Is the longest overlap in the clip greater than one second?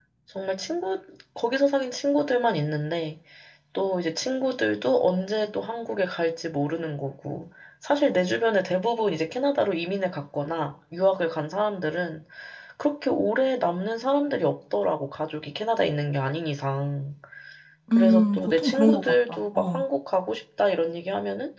Yes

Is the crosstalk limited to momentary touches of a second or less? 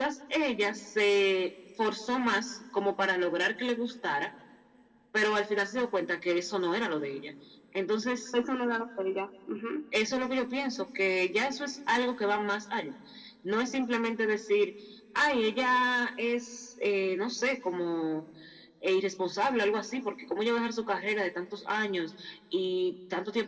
Yes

